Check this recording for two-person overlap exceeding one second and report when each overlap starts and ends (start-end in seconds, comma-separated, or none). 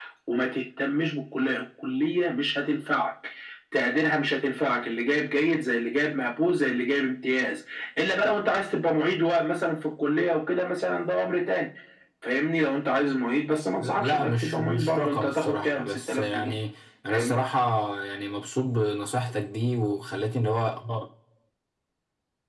13.8-16.5